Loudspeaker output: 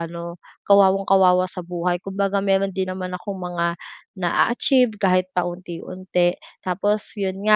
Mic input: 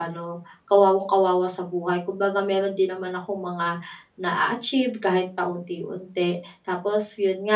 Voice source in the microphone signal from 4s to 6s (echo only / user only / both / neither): echo only